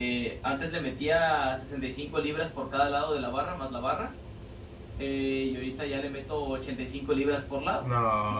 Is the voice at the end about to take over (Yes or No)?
Yes